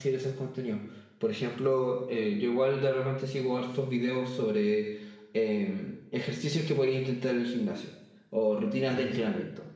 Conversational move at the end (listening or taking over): listening